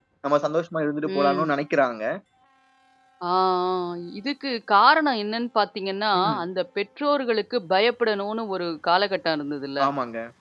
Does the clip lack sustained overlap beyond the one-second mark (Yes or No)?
Yes